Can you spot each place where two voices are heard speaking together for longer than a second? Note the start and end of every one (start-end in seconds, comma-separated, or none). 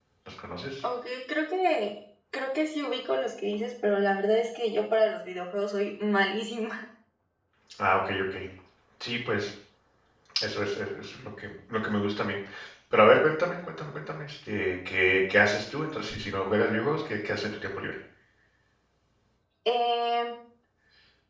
none